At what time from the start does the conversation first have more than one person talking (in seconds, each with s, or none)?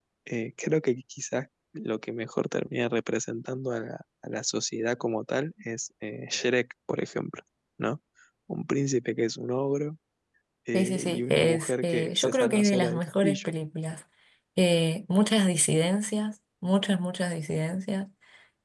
10.7 s